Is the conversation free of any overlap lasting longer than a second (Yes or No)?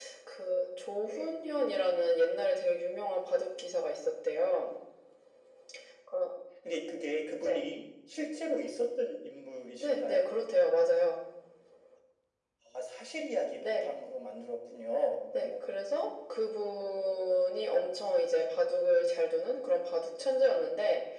Yes